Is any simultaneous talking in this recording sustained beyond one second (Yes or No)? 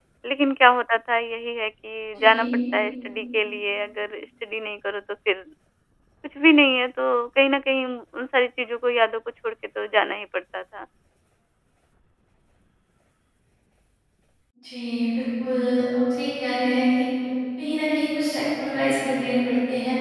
No